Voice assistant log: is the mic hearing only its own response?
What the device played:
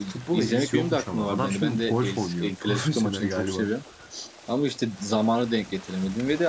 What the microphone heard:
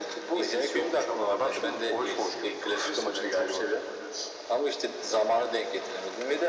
Yes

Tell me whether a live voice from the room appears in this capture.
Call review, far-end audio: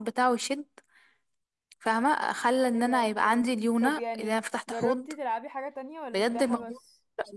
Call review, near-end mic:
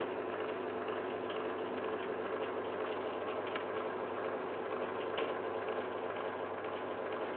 No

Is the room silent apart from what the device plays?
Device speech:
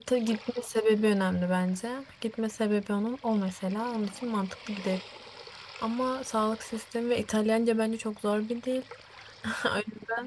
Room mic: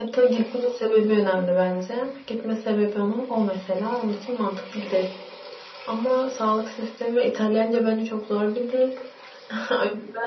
Yes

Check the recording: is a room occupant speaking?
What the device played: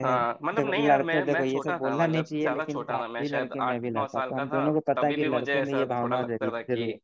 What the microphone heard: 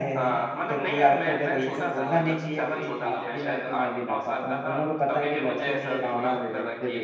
Yes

